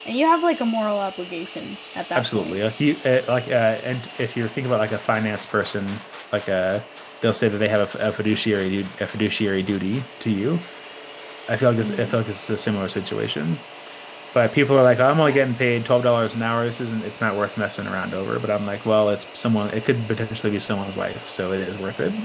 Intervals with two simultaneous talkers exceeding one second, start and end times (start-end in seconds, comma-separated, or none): none